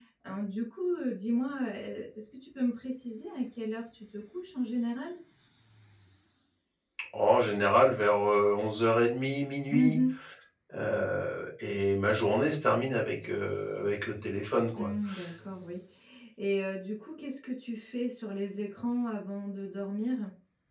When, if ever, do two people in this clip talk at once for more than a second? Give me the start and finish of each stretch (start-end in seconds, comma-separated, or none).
none